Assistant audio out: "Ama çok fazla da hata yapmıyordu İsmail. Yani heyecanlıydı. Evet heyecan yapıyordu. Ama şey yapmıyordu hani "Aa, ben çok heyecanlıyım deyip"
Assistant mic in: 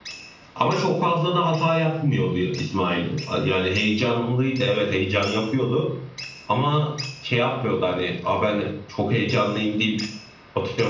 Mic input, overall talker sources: echo only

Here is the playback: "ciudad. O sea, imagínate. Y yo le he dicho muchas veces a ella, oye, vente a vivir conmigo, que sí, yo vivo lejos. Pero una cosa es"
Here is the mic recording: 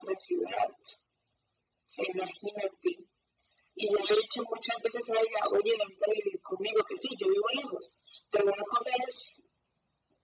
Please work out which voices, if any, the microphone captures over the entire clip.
echo only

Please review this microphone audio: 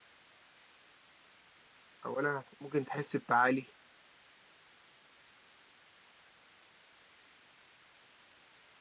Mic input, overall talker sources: user only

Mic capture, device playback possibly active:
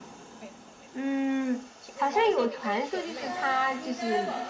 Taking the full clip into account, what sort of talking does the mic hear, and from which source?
both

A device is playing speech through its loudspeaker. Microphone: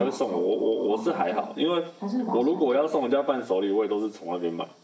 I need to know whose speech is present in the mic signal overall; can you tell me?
both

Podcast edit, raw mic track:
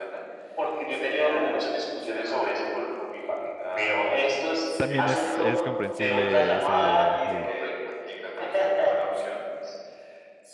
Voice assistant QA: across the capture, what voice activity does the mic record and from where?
both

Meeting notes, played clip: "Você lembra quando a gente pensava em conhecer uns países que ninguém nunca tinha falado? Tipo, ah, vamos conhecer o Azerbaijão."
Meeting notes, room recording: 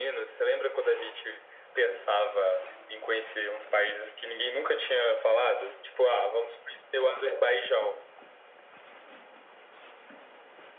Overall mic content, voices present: echo only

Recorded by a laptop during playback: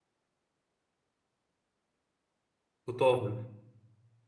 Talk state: user only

